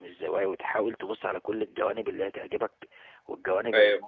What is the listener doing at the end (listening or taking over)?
listening